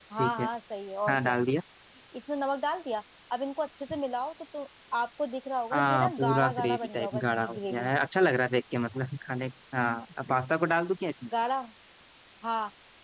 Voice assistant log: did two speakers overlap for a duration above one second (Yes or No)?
Yes